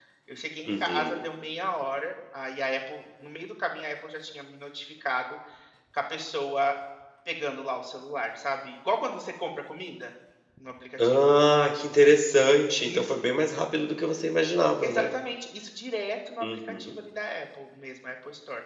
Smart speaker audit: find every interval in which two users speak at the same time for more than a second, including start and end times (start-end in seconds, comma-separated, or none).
none